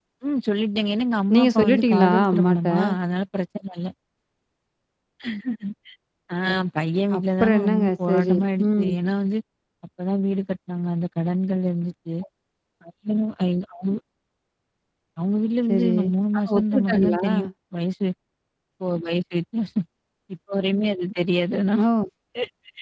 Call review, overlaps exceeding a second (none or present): present